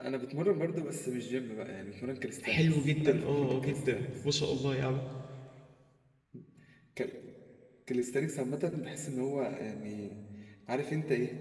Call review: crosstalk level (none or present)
present